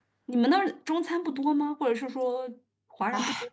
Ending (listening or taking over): taking over